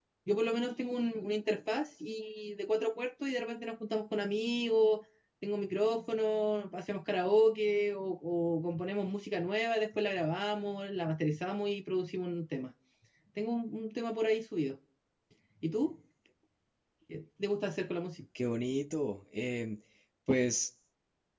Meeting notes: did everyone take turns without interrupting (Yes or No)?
Yes